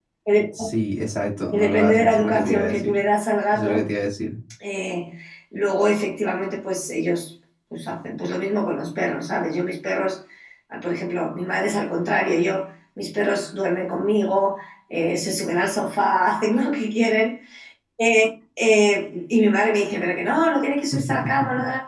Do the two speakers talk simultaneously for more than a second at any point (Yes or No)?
Yes